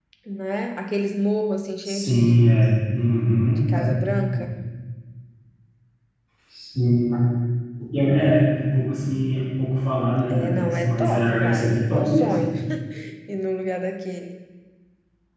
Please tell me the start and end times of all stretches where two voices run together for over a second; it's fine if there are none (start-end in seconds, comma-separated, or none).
10.3-12.4